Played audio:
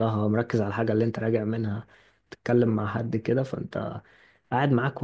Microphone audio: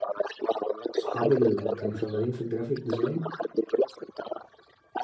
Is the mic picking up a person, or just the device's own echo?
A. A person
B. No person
A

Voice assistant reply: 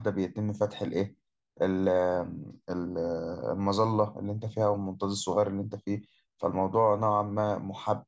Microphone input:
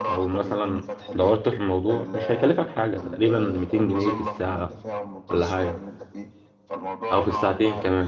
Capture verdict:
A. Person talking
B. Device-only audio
A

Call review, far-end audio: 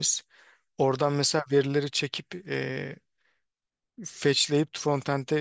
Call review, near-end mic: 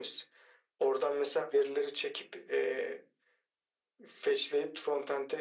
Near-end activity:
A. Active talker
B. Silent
B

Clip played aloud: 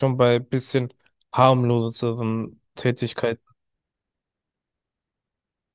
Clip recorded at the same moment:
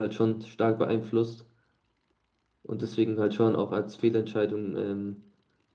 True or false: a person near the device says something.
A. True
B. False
A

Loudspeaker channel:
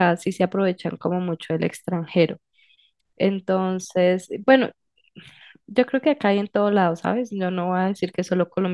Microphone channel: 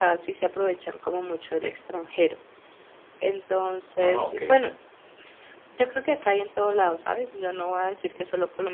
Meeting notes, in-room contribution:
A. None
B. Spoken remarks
B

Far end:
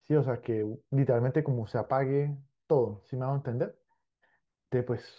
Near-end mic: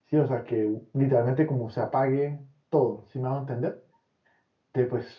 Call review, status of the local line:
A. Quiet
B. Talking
A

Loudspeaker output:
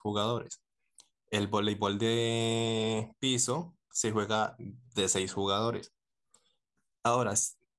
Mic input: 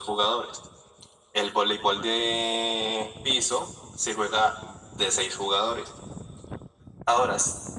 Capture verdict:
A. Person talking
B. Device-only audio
B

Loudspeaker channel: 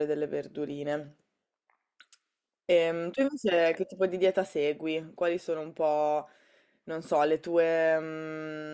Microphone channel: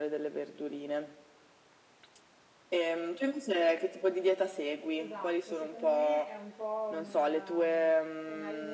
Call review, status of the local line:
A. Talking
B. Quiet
A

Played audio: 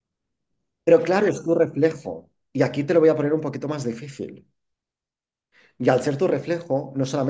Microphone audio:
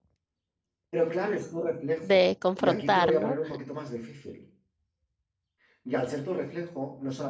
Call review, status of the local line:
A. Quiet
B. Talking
B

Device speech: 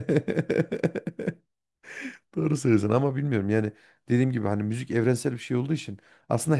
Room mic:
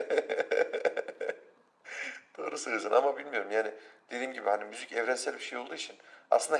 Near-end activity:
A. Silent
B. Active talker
A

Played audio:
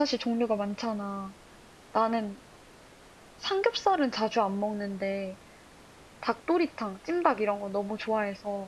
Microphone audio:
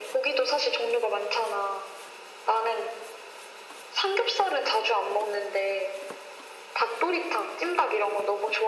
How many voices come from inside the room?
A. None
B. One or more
A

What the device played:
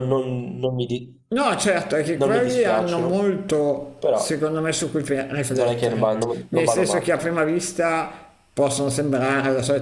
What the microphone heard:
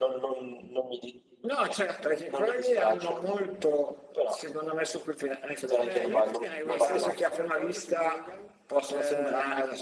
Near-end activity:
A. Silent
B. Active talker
B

